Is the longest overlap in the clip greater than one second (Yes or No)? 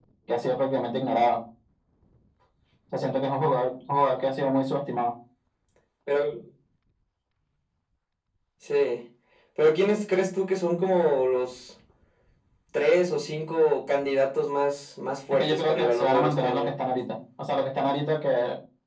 Yes